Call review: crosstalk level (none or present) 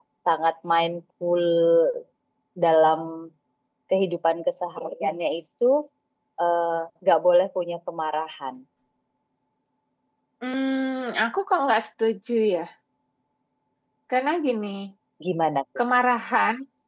none